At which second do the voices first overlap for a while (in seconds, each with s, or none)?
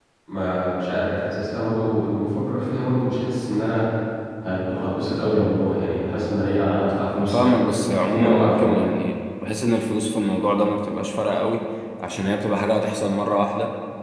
7.2 s